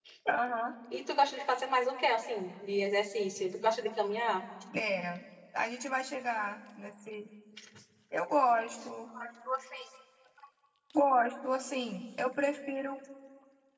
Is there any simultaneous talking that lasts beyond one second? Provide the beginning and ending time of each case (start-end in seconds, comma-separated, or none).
none